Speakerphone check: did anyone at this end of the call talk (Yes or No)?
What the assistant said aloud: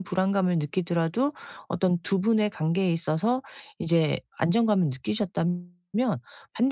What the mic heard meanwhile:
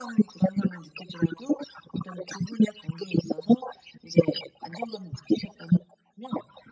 No